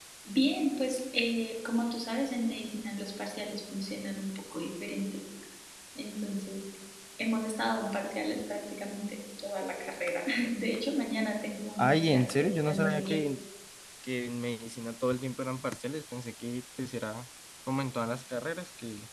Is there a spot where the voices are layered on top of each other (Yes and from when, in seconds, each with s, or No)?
Yes, from 11.8 s